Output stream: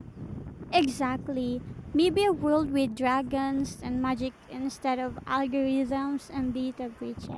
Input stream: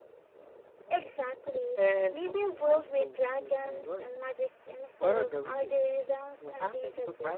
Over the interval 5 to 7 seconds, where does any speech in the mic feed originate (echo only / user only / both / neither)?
both